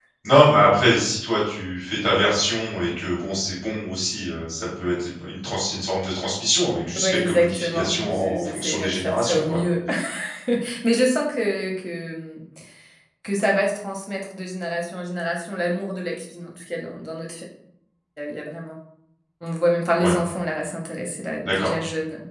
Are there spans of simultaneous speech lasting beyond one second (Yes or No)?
Yes